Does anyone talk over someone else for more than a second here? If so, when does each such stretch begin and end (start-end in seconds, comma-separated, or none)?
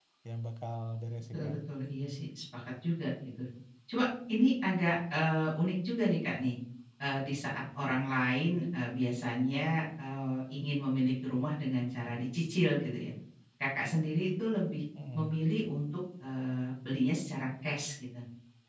none